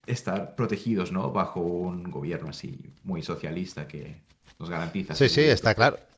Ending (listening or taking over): taking over